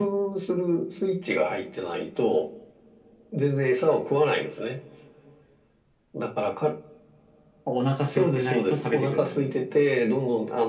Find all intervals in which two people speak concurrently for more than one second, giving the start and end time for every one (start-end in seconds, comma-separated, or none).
8.1-9.7